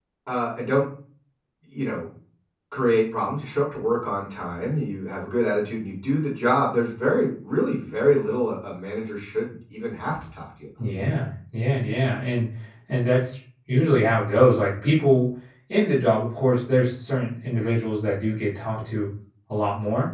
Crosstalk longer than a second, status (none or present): none